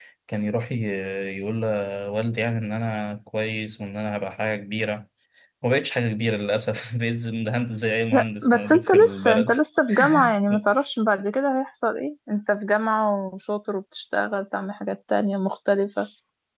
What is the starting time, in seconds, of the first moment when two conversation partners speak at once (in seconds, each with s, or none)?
8.1 s